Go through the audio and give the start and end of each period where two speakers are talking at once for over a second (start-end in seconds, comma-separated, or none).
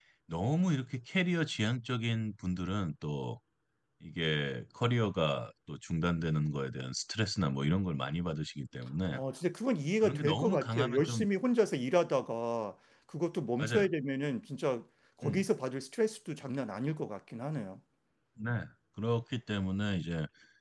10.0-11.2